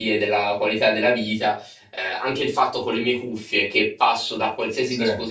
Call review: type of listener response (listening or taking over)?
listening